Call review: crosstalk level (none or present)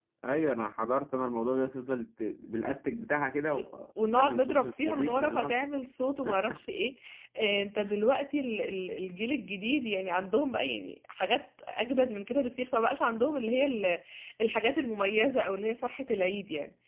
present